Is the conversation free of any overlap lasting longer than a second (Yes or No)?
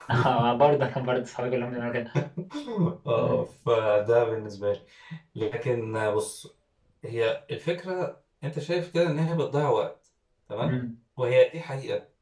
Yes